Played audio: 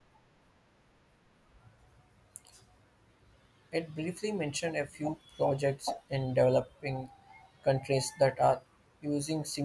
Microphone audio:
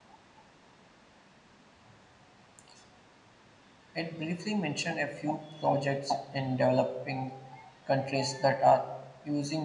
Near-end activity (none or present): none